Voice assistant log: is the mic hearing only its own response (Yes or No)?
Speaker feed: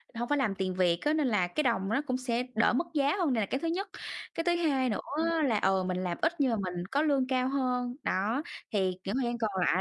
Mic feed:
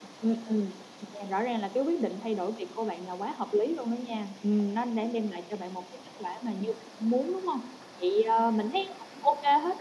No